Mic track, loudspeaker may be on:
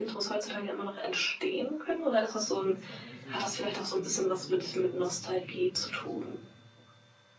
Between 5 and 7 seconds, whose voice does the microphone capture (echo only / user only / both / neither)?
both